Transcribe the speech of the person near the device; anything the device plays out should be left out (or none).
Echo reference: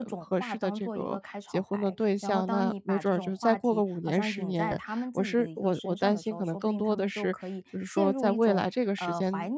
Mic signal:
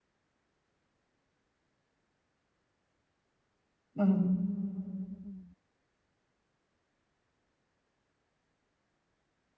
嗯，